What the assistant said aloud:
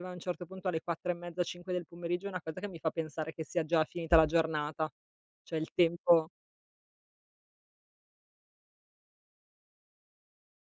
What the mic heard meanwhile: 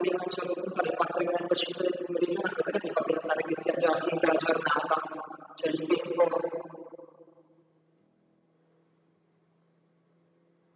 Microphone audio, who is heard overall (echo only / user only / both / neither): echo only